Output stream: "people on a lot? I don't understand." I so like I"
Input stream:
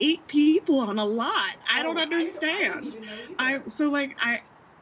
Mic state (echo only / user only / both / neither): both